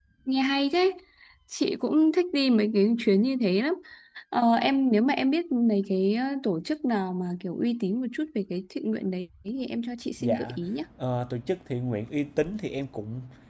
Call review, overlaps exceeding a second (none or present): none